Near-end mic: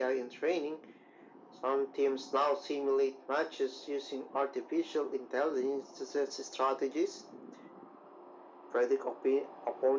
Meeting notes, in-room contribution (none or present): none